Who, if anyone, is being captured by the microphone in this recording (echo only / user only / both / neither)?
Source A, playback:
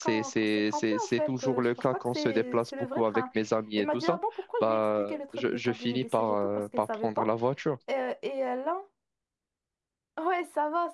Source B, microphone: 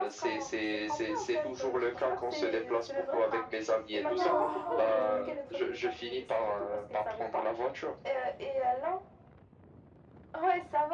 both